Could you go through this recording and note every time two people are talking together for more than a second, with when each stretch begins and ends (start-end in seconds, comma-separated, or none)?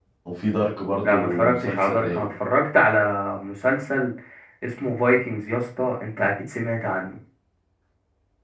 1.0-2.3